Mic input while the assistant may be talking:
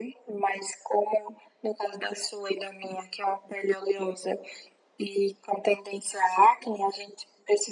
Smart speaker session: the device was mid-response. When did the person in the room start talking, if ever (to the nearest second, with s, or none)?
none